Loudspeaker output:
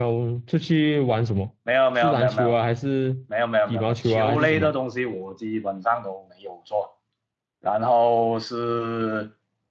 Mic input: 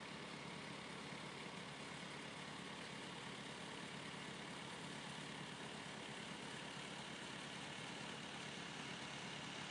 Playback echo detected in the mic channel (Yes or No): No